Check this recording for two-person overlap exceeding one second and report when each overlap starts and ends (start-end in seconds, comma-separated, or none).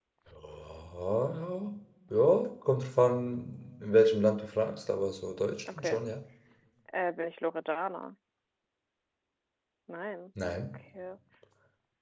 none